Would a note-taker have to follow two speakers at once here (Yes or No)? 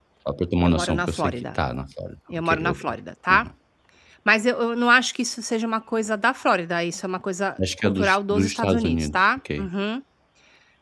Yes